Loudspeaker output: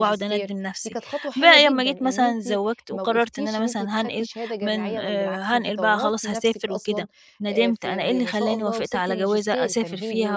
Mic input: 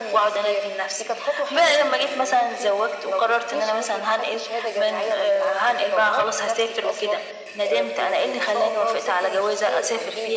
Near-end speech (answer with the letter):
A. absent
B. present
A